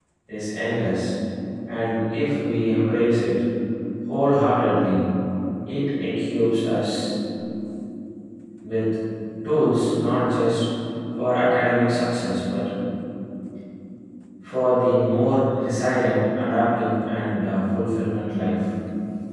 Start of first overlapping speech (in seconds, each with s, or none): none